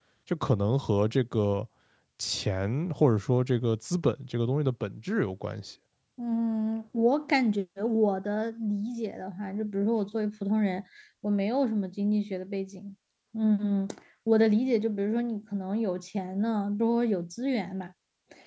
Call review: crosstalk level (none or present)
none